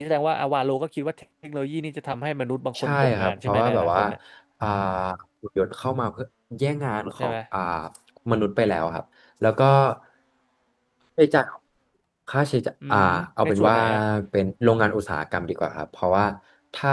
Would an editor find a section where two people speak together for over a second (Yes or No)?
Yes